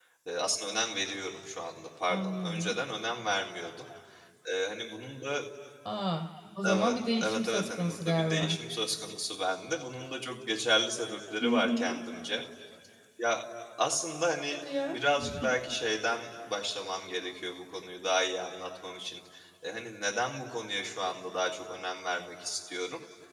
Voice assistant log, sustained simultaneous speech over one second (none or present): present